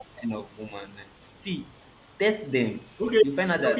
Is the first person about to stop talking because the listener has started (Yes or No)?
Yes